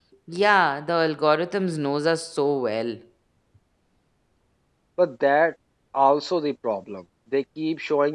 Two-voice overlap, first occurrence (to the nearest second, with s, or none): none